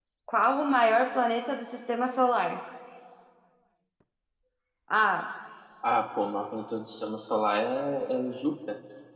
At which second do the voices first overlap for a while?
none

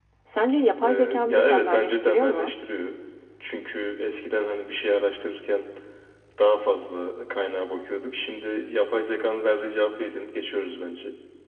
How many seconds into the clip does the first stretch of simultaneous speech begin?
0.8 s

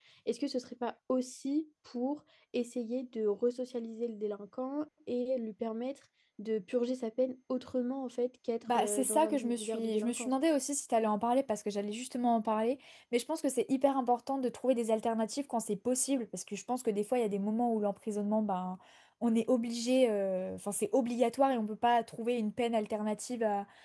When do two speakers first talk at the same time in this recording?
8.6 s

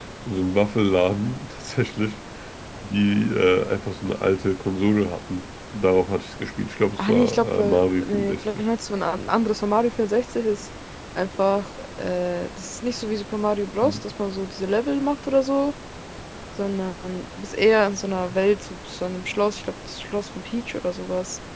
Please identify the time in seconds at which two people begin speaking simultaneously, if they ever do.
7.0 s

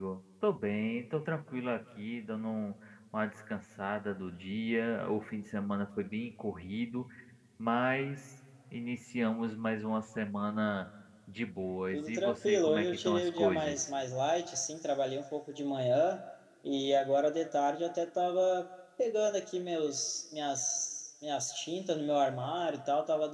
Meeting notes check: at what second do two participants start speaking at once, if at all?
11.9 s

